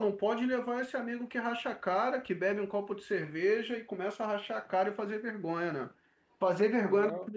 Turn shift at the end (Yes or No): No